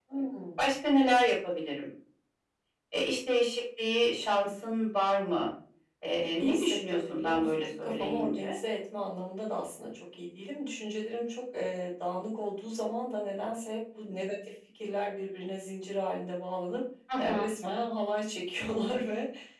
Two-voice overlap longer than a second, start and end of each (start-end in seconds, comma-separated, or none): 6.4-8.6